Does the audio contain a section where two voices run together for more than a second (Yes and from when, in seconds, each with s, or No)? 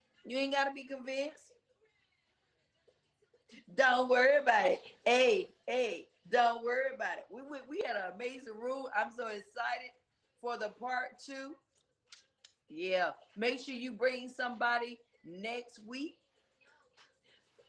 No